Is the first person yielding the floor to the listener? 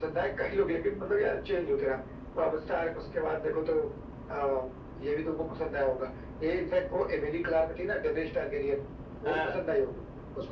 No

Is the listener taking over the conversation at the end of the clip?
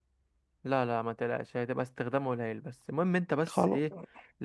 No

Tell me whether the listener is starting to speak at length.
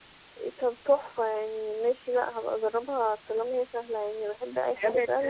Yes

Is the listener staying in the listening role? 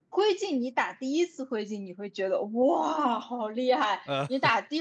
Yes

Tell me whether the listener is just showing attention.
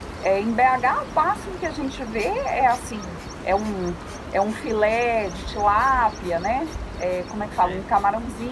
Yes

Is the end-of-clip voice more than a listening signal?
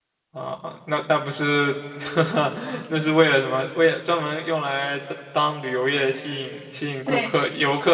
No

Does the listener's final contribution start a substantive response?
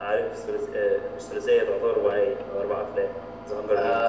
Yes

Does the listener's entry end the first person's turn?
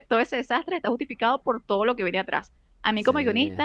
No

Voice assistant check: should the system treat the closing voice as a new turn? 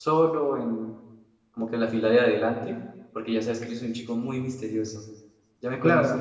Yes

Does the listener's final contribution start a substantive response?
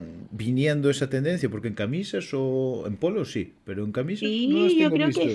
Yes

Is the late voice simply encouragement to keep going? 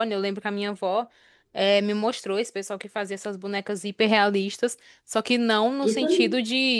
Yes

